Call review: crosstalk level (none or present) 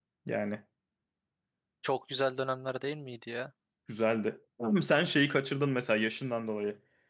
none